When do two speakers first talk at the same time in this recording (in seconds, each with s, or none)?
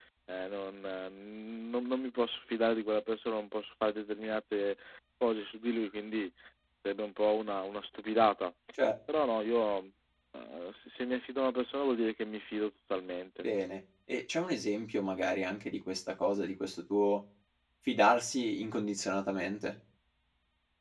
none